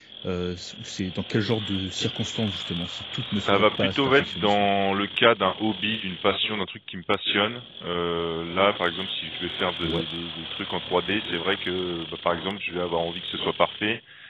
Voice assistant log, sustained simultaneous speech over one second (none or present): present